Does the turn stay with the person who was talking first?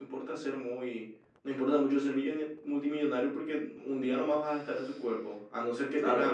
Yes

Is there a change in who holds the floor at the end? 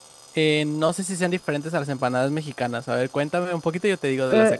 Yes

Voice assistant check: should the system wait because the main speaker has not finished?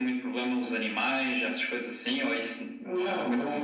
No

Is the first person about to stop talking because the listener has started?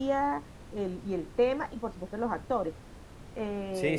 Yes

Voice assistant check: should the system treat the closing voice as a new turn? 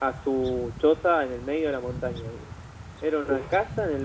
No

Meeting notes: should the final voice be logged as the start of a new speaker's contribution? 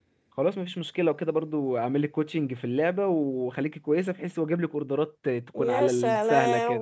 Yes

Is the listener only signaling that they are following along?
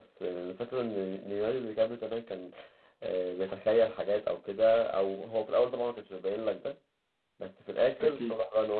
Yes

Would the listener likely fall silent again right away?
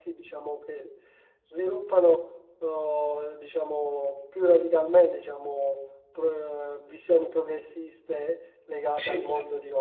Yes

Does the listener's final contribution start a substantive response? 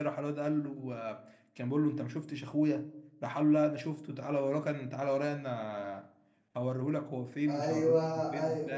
Yes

